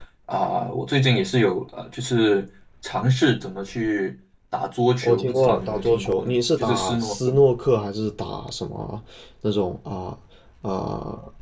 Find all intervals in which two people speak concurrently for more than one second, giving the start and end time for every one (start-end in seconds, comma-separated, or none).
5.0-7.3